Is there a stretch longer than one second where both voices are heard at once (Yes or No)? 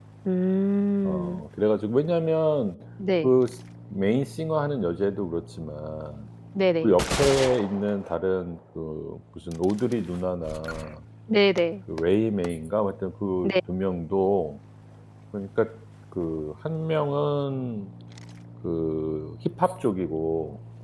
No